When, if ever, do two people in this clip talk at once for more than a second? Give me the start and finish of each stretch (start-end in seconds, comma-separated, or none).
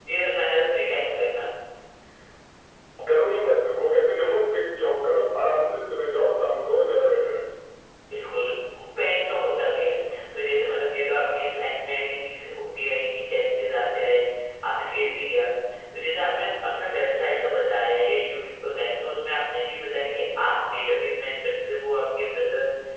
none